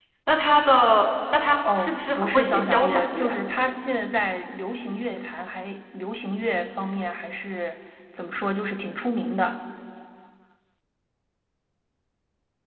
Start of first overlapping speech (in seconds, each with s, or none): 1.6 s